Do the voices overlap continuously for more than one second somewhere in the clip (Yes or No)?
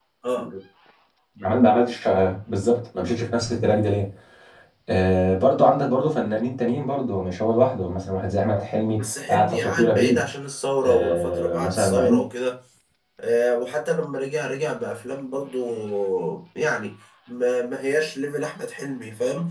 Yes